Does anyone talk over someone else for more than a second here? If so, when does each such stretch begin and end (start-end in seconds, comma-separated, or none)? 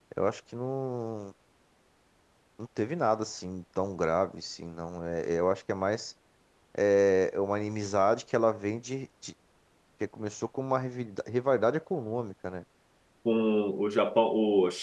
none